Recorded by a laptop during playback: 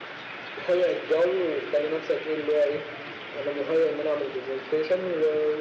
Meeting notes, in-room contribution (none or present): none